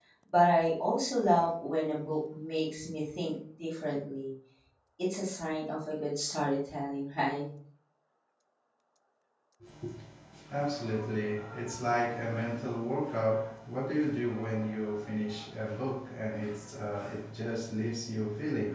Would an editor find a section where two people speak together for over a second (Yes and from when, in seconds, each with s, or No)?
No